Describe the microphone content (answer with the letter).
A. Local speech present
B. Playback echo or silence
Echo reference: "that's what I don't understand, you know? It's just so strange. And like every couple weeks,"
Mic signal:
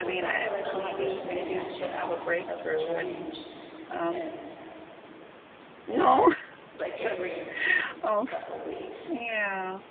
A